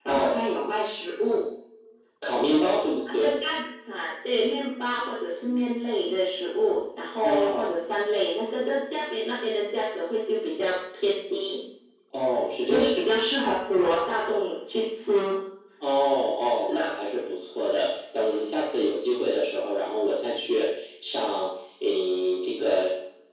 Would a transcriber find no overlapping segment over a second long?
Yes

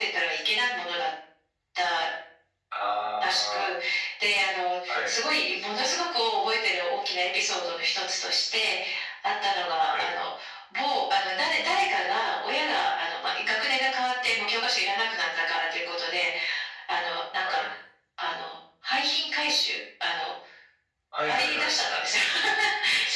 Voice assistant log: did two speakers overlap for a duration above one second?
No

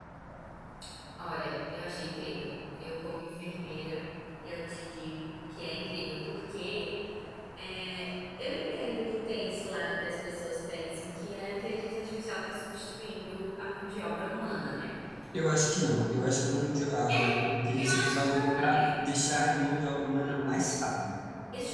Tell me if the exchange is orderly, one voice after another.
No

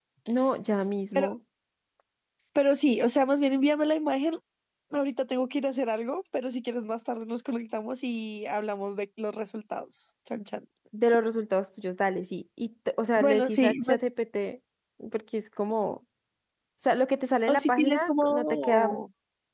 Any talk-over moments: Yes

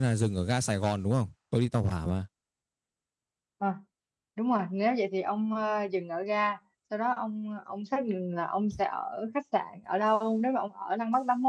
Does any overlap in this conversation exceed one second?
No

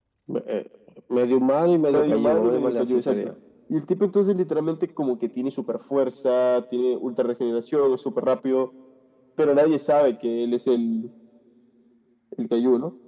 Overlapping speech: Yes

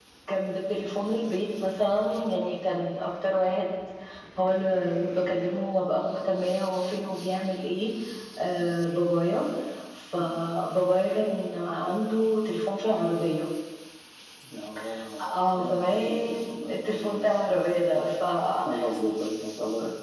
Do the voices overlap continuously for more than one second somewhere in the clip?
Yes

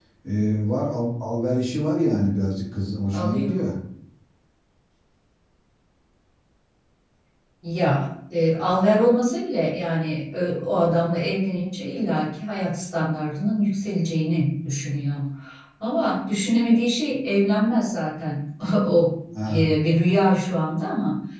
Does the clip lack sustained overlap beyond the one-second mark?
Yes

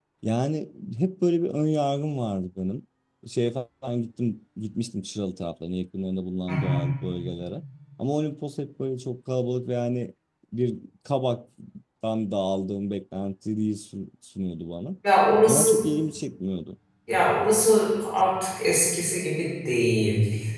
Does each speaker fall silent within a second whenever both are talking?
Yes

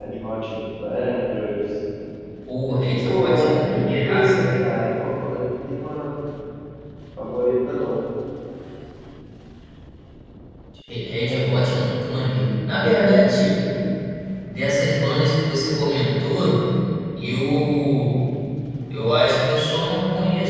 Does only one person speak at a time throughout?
No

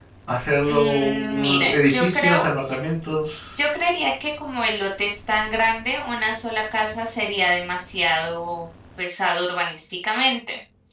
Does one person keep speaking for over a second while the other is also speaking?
Yes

